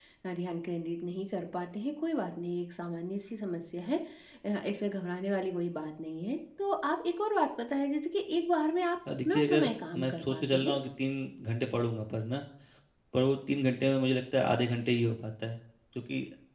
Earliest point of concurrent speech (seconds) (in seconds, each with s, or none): 9.1 s